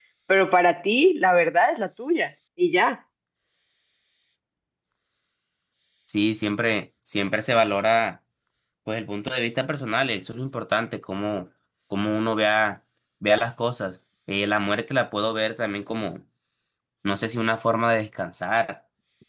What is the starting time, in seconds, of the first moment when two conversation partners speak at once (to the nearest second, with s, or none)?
none